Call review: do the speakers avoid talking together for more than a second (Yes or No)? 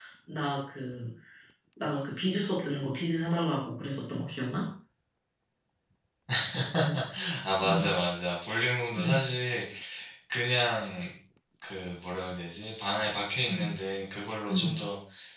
Yes